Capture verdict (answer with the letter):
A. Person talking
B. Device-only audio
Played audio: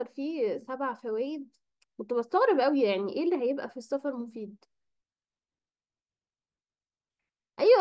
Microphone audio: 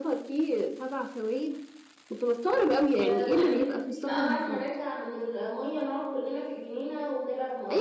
A